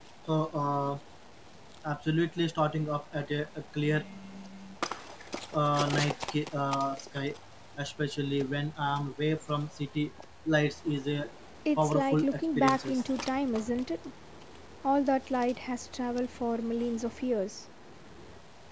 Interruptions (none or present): present